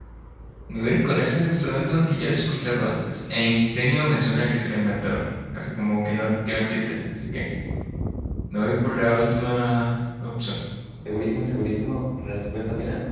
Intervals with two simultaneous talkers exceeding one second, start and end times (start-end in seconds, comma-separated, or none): none